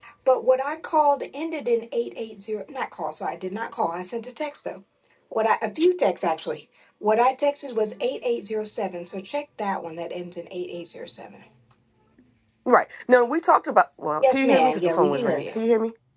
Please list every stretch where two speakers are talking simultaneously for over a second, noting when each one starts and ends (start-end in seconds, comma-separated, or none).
14.2-15.4